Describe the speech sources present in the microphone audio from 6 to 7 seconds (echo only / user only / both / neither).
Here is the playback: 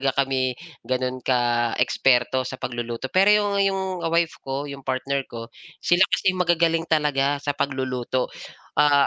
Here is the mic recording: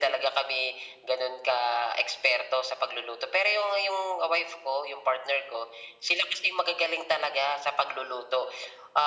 echo only